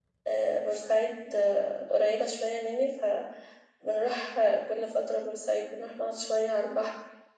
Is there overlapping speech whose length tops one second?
No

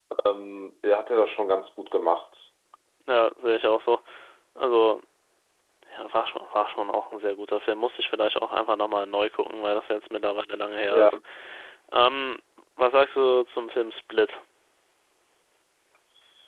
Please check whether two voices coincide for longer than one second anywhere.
No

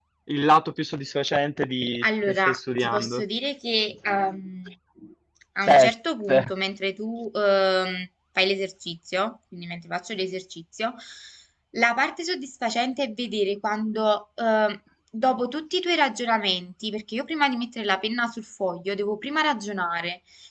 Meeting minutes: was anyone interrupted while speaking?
Yes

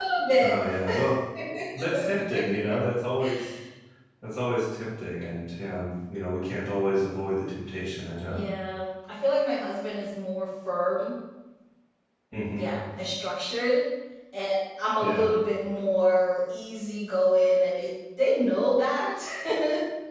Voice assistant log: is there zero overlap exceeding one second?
Yes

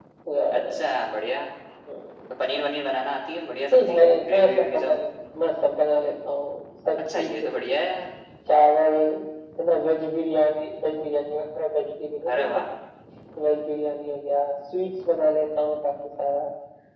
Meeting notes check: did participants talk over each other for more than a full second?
Yes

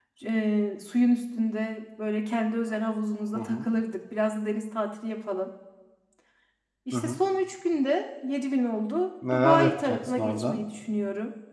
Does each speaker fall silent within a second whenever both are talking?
No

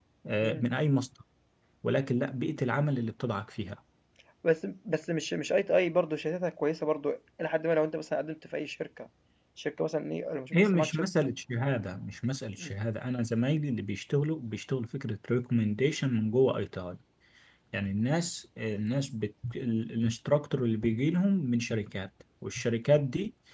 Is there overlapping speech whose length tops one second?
No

